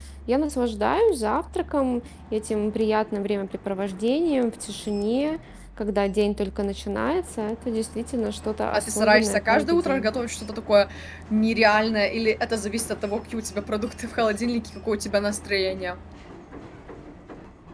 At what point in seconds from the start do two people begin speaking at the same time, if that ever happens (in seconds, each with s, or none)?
8.7 s